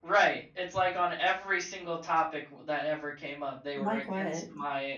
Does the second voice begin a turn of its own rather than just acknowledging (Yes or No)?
No